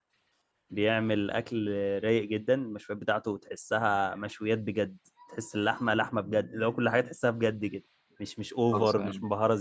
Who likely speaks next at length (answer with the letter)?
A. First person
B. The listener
A